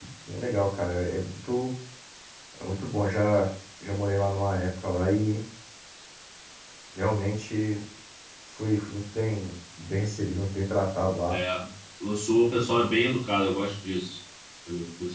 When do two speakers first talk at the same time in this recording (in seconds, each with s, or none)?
none